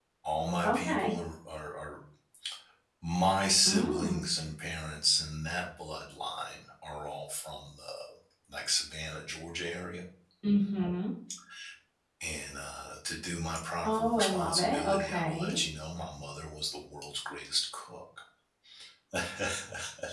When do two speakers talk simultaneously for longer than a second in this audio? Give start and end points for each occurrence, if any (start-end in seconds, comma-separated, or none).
13.8-15.6